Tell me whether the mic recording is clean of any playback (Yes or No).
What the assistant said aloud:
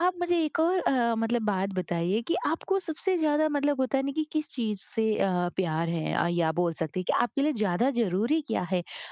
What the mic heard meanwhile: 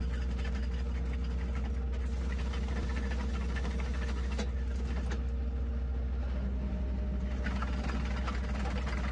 Yes